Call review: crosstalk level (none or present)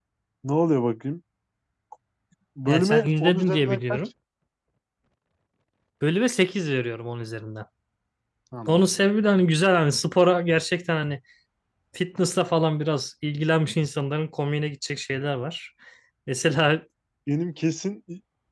present